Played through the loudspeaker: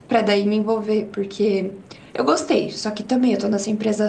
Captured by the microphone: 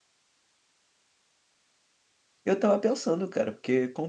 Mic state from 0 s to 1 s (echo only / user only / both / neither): neither